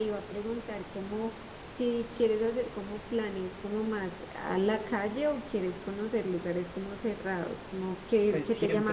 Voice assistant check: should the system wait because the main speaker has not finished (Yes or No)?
No